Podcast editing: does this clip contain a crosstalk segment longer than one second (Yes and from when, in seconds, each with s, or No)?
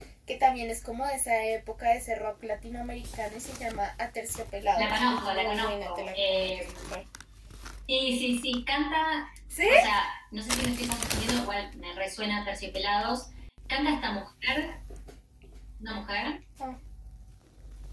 Yes, from 4.8 s